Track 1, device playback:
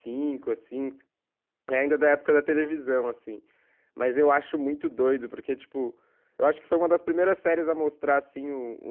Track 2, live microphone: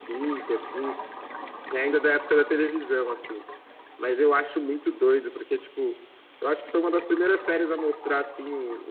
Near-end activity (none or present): none